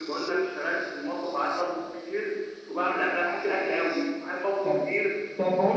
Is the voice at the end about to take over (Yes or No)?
Yes